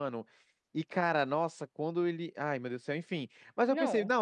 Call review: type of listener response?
listening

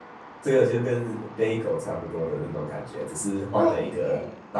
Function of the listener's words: taking over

